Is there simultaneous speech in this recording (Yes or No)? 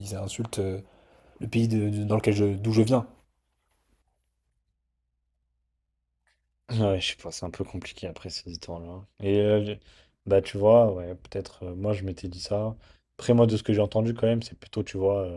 No